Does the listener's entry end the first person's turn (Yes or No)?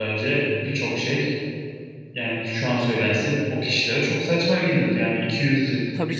No